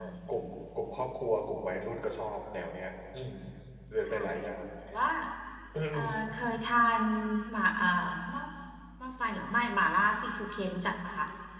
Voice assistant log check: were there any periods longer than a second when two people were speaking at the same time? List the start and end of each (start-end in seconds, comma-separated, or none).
none